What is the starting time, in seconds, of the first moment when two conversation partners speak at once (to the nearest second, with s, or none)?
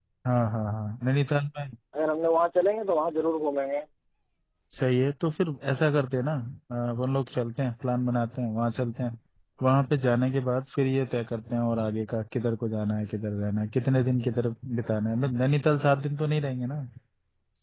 none